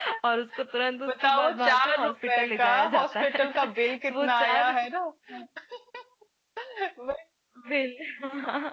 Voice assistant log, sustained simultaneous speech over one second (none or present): present